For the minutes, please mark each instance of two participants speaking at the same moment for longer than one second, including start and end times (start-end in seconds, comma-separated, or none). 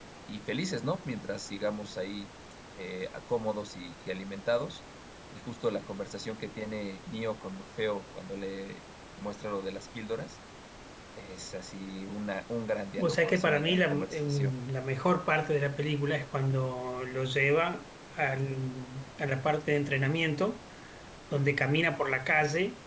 13.0-14.5